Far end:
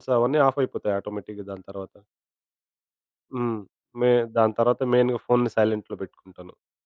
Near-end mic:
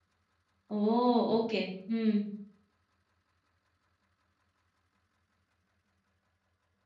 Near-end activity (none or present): present